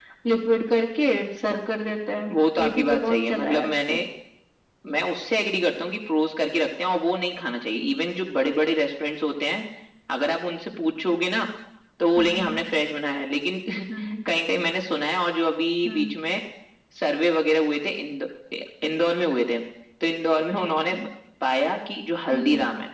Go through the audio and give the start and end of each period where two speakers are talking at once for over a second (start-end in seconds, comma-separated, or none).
2.3-4.0